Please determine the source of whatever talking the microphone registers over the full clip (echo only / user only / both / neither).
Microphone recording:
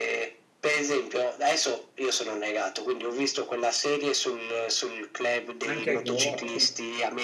both